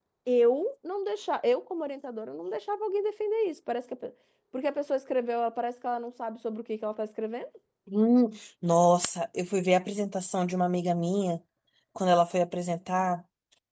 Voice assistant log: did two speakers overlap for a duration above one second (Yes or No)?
No